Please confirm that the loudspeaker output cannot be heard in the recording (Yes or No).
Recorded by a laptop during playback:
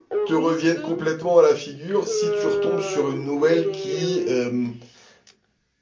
No